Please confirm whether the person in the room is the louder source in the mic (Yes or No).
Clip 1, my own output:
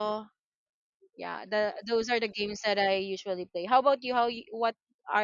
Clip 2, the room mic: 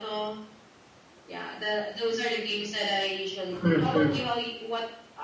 Yes